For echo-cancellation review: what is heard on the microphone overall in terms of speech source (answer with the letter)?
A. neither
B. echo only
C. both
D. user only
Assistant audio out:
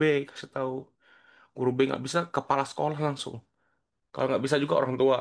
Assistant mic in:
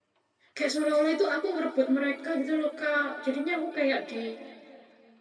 D